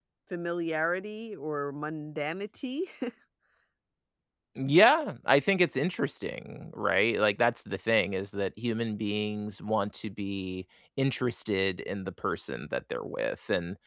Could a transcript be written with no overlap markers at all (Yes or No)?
Yes